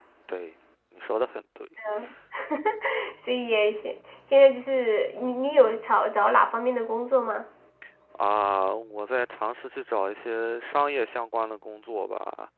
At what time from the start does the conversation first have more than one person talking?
none

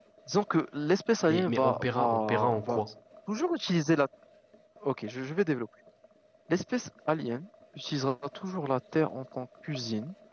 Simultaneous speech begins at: 1.3 s

